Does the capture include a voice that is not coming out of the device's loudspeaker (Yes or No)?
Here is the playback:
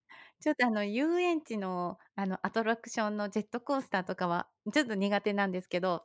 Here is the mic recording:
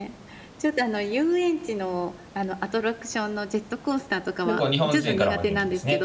Yes